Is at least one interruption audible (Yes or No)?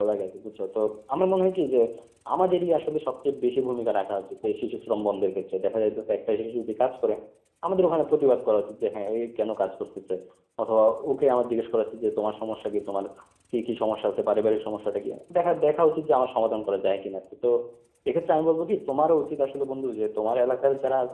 No